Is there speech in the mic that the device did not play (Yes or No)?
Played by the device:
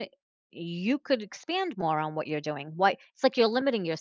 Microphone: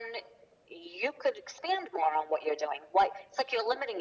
No